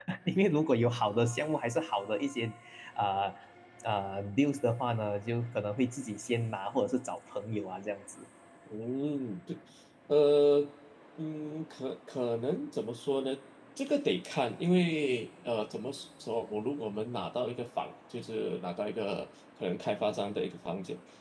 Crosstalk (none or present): none